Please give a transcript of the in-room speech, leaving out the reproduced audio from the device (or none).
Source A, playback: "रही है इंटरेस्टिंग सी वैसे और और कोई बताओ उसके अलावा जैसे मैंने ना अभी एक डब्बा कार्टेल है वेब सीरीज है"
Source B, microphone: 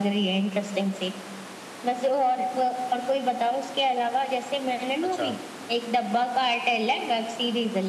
अच्छा